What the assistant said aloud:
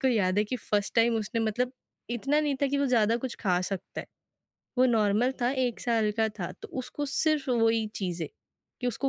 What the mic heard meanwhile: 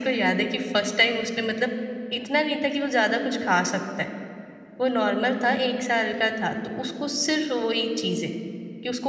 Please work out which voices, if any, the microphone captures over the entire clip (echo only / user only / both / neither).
echo only